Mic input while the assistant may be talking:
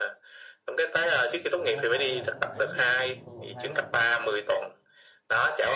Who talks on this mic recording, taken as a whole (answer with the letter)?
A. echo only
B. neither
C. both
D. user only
C